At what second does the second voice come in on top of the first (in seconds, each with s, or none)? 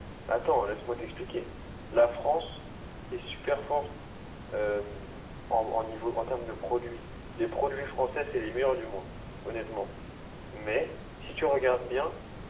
none